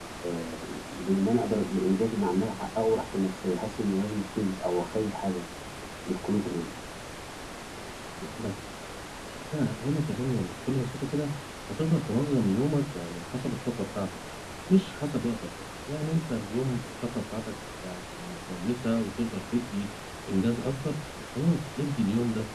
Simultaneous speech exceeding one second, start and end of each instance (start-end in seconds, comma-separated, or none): none